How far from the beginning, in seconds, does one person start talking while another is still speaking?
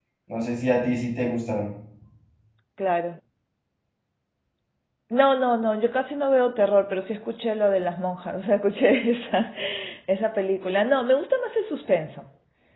none

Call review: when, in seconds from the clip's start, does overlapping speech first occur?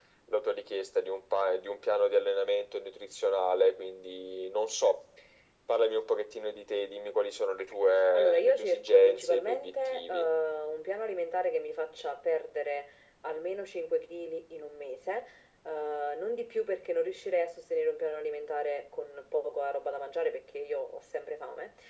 8.1 s

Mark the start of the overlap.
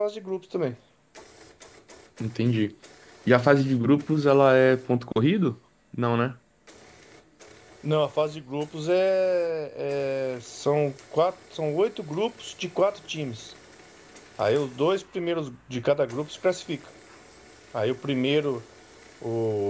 none

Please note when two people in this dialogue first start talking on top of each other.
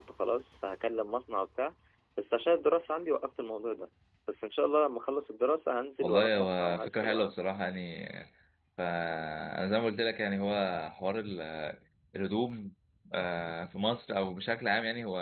6.0 s

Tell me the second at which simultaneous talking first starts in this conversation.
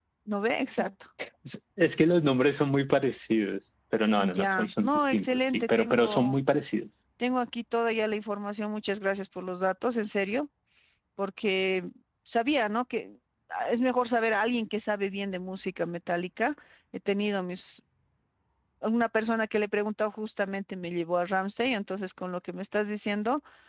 4.2 s

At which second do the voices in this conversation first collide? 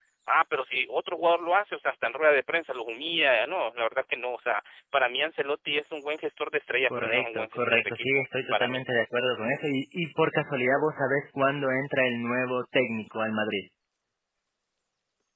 6.9 s

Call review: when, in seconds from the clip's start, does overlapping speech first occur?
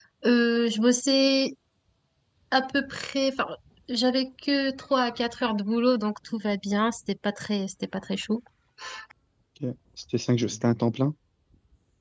none

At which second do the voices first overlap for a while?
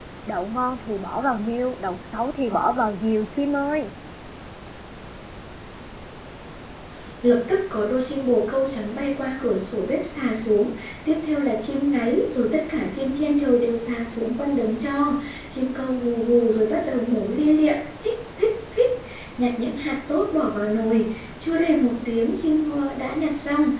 none

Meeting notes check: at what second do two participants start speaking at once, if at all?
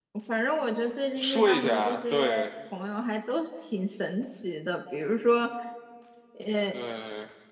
1.2 s

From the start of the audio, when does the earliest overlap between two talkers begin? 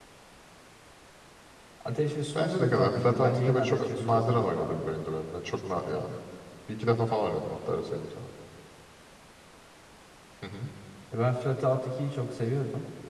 2.4 s

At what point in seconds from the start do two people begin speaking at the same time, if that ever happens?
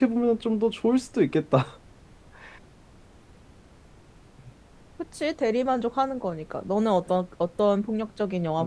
none

